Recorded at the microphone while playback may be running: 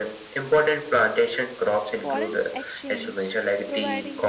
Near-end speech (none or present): present